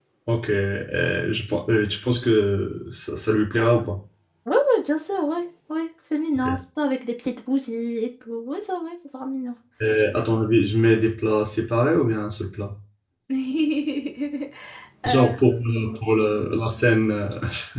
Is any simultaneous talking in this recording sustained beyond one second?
Yes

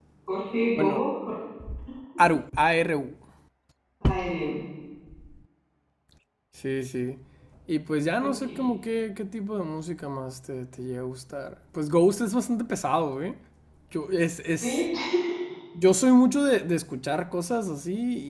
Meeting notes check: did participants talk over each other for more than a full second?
No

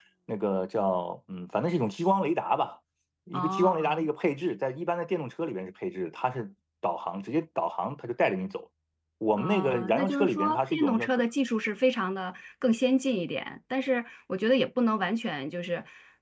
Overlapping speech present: Yes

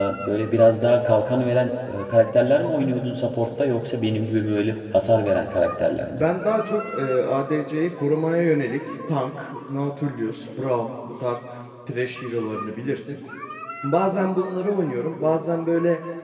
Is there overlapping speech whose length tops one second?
No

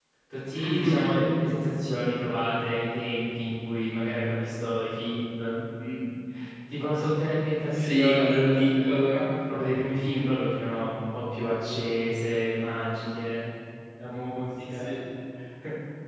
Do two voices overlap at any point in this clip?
Yes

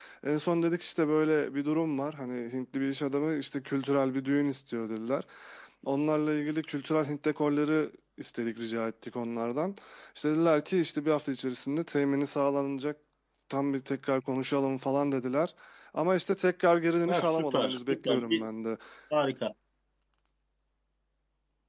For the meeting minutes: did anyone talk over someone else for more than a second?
Yes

